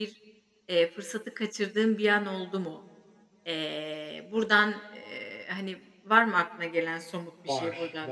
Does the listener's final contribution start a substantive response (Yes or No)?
Yes